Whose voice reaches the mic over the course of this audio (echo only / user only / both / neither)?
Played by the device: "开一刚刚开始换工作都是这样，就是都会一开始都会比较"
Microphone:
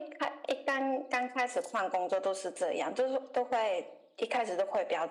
echo only